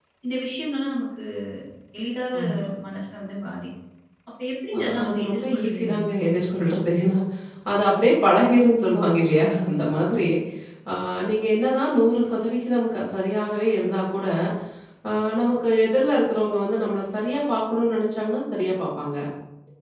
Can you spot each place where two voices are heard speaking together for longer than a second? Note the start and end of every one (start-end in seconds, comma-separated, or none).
4.8-6.1